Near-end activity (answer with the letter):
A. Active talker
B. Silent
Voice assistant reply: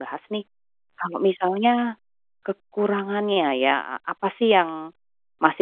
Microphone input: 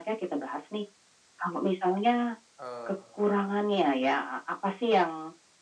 A